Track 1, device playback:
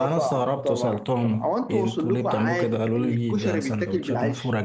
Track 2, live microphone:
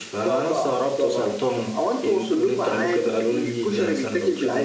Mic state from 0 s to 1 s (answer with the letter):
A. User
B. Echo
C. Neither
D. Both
B